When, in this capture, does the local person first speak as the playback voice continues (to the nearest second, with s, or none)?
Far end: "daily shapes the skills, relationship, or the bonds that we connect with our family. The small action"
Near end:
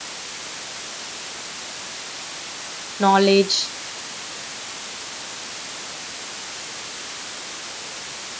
3 s